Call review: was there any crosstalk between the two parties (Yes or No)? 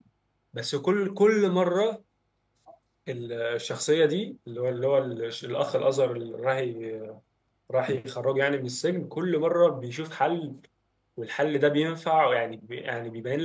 No